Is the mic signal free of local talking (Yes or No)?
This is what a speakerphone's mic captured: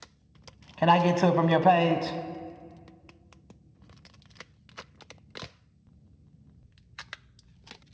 No